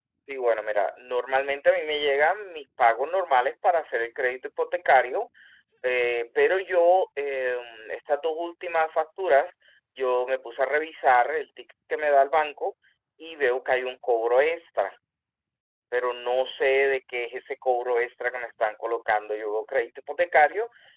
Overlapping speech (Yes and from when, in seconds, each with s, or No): No